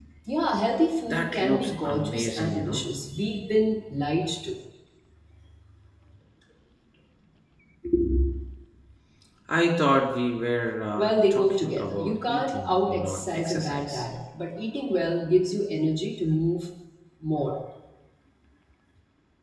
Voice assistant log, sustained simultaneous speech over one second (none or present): present